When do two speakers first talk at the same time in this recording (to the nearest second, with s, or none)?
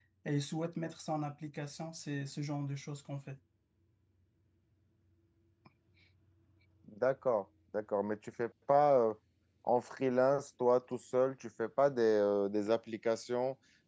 none